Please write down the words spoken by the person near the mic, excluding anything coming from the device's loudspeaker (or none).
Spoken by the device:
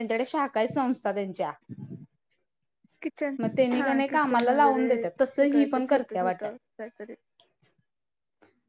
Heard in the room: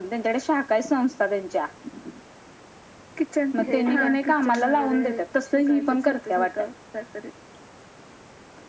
फेक आहेच